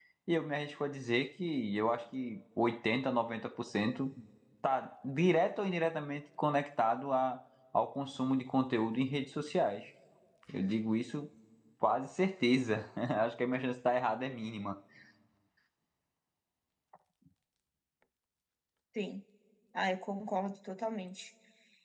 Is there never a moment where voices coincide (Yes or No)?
Yes